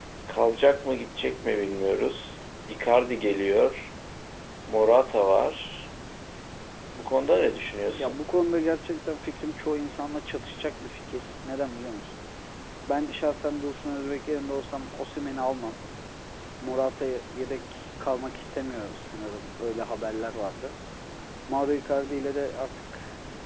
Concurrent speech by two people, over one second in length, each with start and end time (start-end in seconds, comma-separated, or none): none